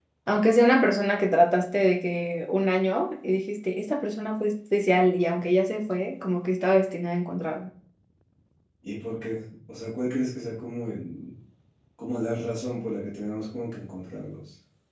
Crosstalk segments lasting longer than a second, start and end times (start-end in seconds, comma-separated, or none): none